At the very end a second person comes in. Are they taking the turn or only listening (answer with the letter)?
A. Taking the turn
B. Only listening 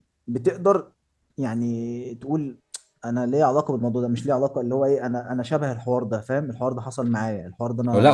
A